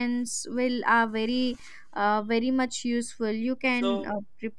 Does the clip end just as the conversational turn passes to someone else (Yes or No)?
Yes